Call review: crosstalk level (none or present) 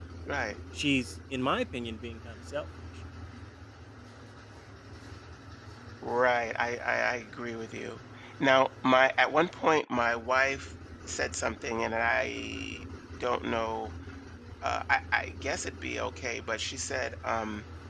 none